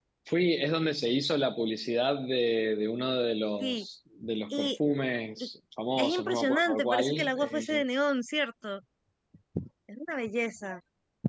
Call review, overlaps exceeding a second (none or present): present